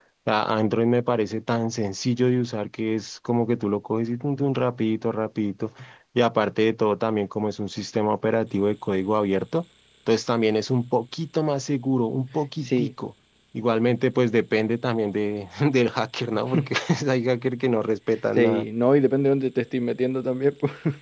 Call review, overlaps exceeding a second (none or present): none